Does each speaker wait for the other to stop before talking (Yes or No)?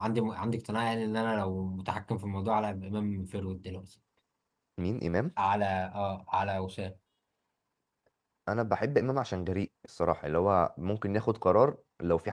Yes